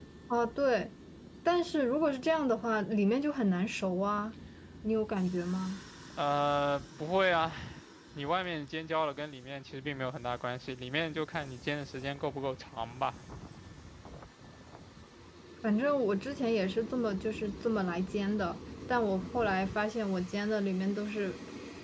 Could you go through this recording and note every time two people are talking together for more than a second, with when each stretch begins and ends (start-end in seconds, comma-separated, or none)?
none